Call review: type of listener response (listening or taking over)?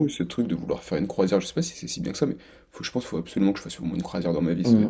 taking over